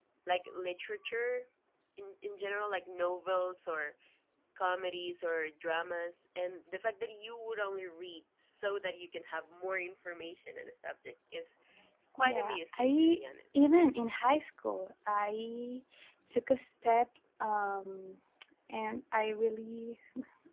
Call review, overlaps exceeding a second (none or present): present